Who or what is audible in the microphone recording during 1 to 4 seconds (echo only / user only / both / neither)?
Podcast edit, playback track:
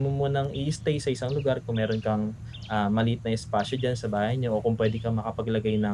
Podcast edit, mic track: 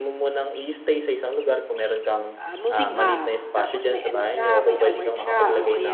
both